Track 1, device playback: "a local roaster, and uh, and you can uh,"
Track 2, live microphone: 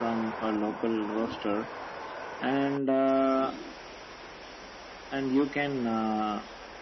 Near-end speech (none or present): none